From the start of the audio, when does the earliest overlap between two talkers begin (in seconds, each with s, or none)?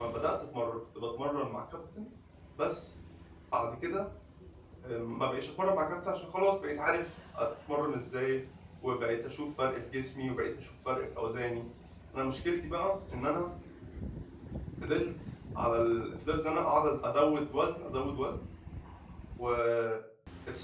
none